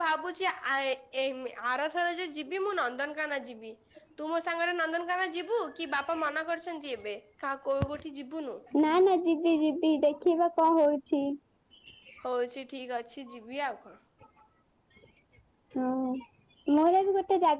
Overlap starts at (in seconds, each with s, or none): none